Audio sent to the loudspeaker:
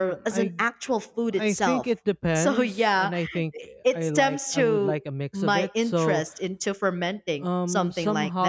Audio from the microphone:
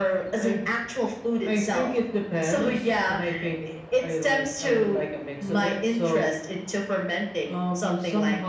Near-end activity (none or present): none